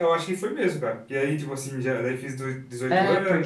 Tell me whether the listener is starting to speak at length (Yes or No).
Yes